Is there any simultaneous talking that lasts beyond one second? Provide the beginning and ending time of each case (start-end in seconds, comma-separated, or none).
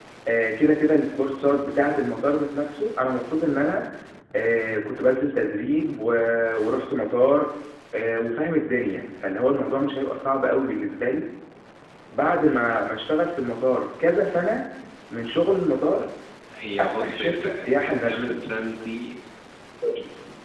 16.8-18.4